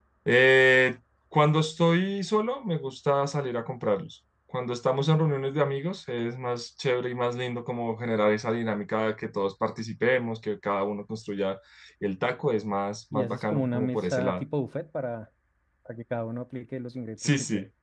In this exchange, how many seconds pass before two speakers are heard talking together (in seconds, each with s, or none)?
13.1 s